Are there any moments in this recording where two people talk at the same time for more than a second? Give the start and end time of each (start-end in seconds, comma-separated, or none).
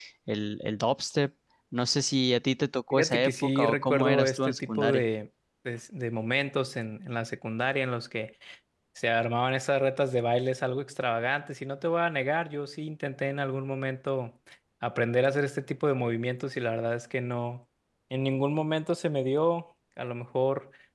2.9-5.0